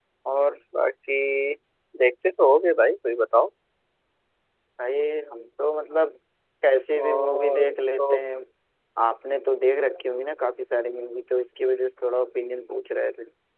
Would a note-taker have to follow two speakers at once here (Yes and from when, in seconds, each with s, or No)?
Yes, from 7.0 s